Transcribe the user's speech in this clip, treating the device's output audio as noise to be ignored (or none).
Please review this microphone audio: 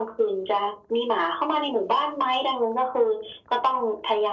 none